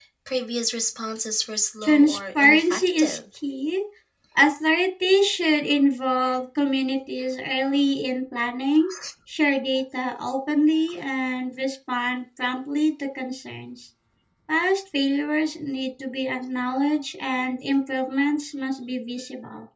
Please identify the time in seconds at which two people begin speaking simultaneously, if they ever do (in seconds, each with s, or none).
1.8 s